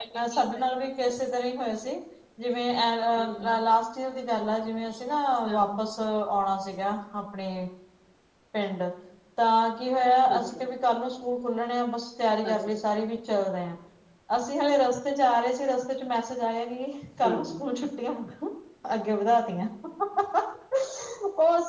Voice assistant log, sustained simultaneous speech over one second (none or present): none